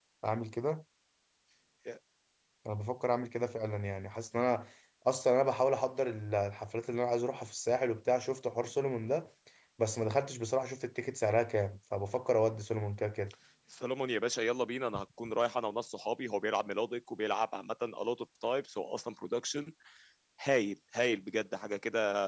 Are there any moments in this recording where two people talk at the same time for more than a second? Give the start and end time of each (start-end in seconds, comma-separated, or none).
none